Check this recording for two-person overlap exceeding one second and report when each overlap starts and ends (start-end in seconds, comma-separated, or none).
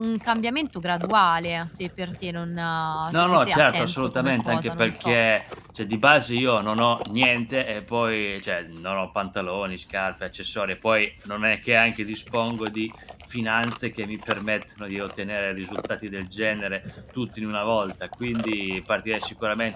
3.1-5.2